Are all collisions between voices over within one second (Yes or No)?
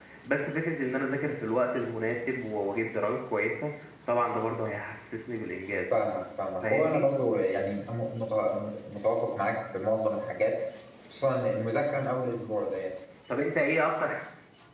Yes